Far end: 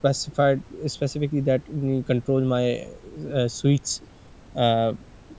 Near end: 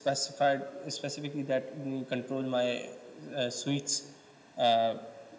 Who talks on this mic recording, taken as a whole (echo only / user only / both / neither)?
echo only